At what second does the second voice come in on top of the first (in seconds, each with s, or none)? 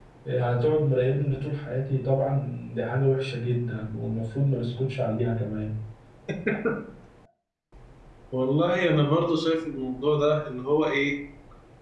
none